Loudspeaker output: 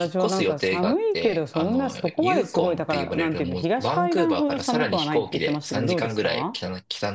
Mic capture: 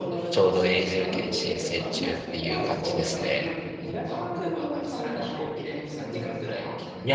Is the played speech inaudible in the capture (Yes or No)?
No